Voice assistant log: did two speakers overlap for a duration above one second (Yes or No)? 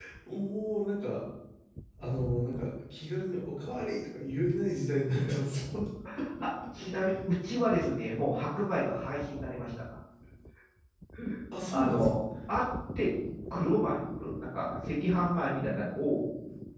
No